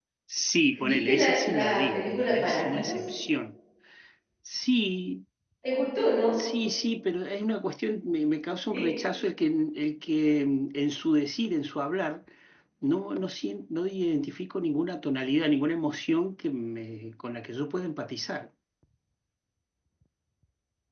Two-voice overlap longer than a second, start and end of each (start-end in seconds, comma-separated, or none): 0.8-3.0